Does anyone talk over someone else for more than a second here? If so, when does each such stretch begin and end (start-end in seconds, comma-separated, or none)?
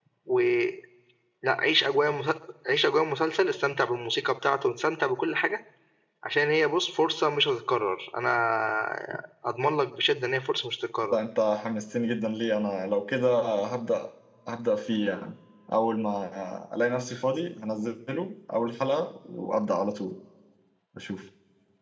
none